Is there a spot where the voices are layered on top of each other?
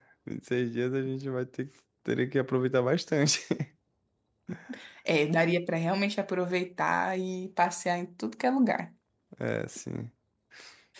No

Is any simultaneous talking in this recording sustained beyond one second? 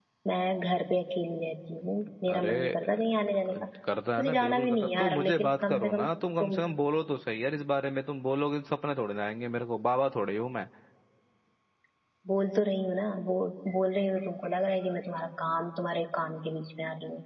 Yes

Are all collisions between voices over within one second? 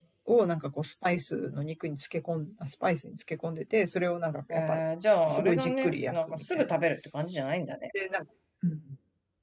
No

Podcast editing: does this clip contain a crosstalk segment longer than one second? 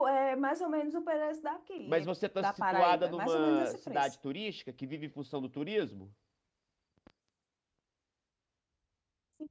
Yes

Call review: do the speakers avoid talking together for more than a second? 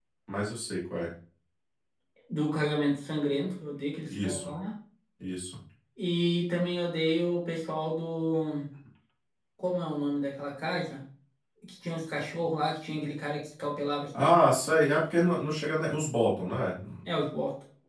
Yes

